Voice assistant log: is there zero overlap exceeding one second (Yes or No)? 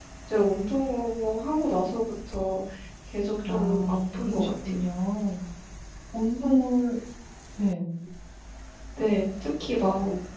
No